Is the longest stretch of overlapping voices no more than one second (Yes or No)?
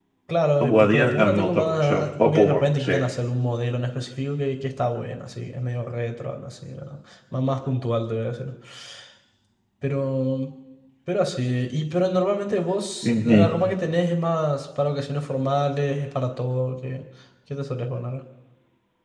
No